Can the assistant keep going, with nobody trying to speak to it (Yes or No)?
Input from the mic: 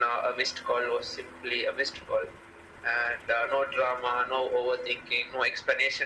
Yes